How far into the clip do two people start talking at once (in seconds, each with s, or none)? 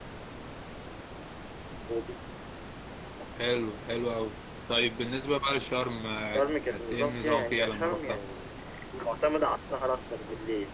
6.2 s